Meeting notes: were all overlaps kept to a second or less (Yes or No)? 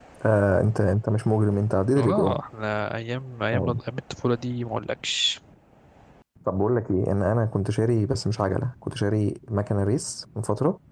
Yes